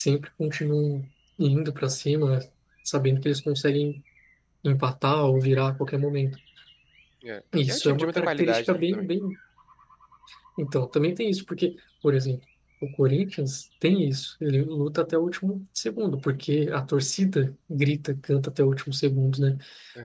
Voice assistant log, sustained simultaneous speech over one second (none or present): present